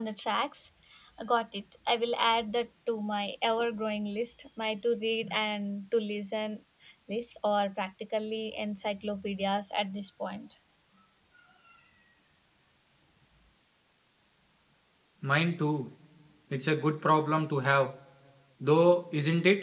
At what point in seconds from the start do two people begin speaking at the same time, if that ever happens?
none

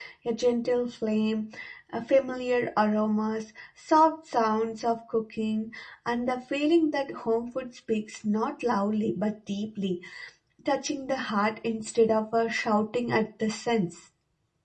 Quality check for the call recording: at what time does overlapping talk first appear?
none

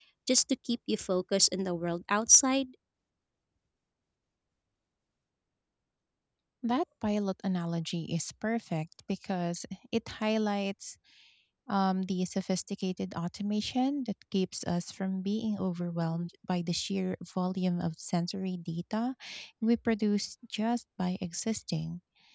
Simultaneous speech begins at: none

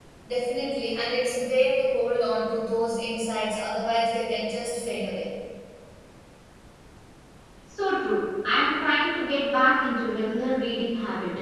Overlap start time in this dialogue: none

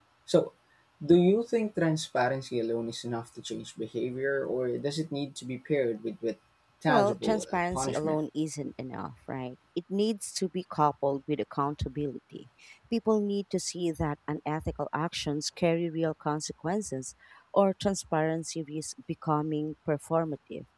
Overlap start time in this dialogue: 6.9 s

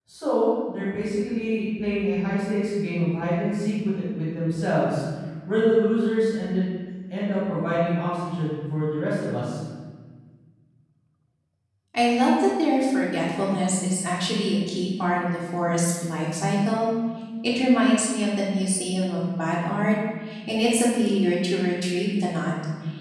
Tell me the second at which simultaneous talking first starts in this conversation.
none

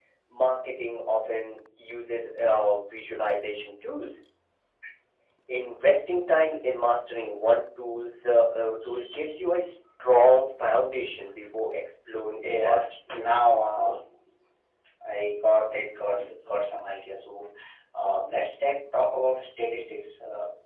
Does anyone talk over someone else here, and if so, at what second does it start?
12.4 s

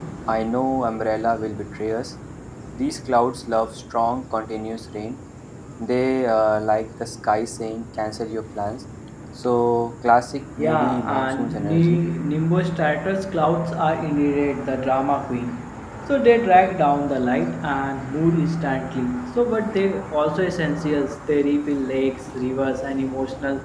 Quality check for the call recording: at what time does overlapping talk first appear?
10.6 s

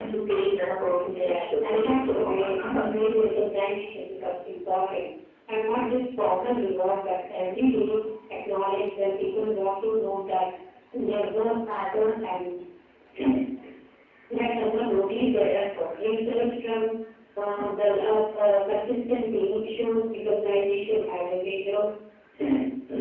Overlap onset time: 1.0 s

